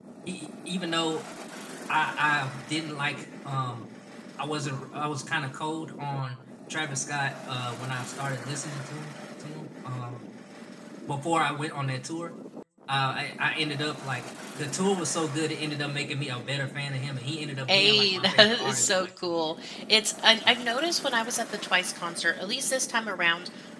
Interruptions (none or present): present